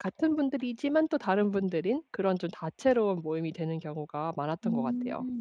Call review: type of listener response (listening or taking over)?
taking over